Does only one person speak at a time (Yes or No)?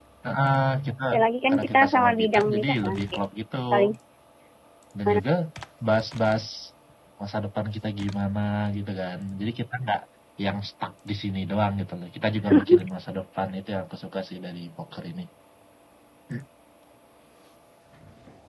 No